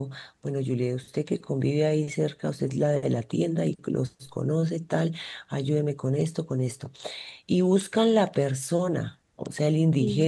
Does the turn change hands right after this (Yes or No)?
No